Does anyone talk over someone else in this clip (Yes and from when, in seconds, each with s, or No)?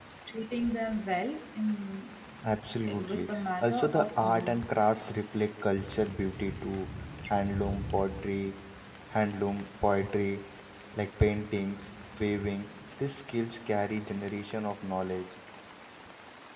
Yes, from 2.9 s